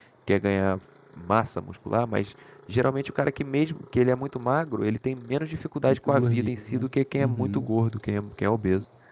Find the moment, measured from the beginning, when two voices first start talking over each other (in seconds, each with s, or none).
5.9 s